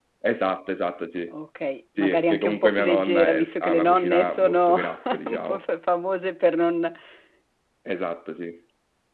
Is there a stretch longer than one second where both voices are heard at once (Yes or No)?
Yes